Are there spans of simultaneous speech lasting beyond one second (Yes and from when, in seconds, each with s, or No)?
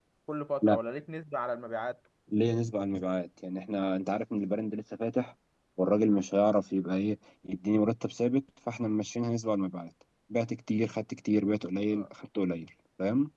No